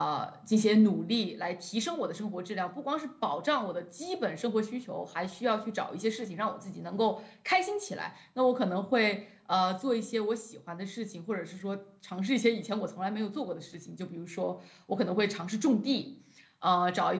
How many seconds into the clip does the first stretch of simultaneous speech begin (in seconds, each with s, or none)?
none